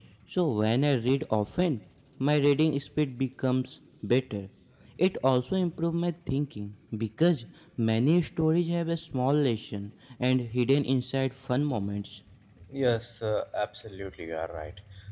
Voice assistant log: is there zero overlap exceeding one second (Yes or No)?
Yes